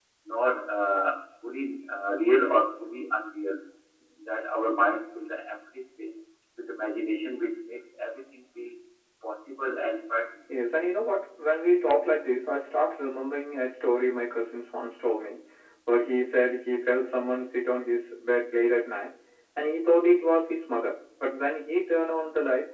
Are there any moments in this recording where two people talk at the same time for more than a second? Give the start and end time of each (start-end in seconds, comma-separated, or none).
none